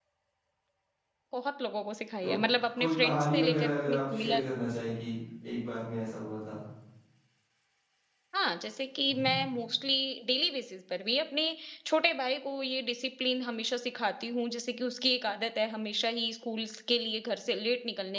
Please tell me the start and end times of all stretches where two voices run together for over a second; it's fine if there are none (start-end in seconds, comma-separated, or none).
2.8-4.5